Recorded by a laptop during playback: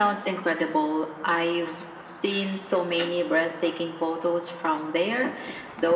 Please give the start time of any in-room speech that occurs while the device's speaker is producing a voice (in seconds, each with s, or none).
none